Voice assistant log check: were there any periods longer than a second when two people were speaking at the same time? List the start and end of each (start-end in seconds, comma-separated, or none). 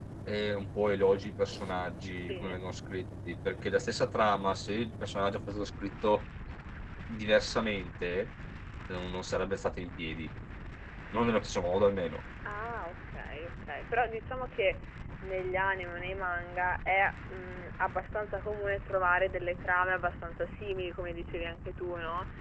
none